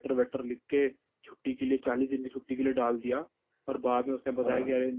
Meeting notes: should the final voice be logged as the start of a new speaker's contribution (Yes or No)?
No